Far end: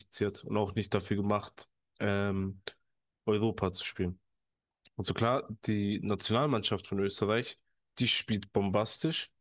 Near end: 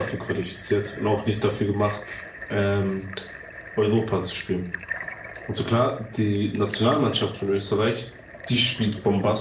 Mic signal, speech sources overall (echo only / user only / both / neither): echo only